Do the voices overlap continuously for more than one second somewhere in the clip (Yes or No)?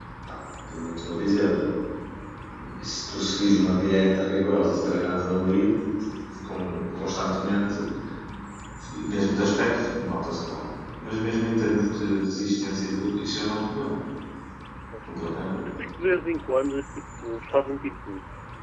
No